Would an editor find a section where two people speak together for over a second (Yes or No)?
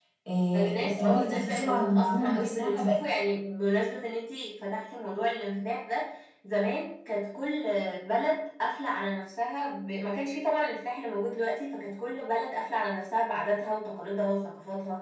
Yes